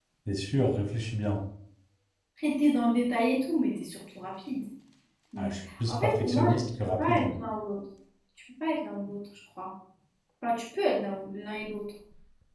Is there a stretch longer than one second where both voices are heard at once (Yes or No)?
Yes